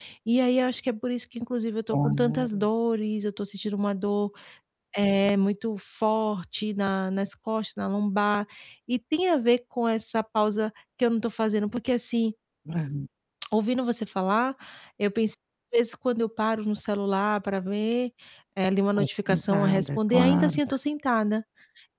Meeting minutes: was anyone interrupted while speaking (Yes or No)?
Yes